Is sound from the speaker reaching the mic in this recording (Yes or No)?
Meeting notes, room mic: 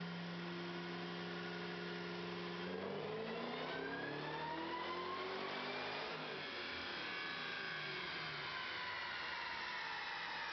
No